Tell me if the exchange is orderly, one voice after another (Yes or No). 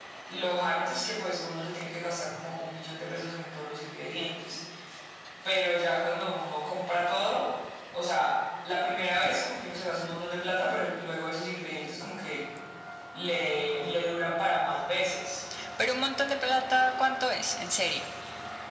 Yes